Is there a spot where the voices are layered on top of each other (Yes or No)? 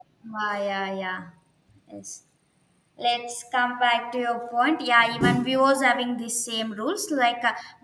No